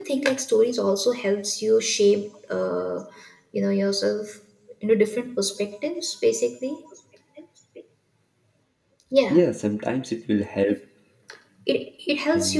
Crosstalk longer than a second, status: none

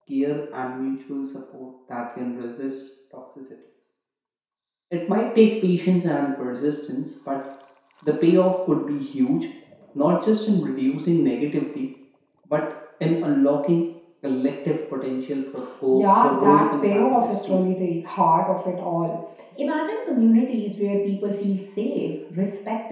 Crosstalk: present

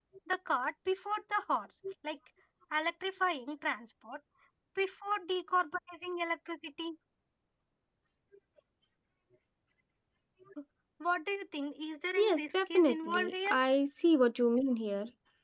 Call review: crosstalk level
present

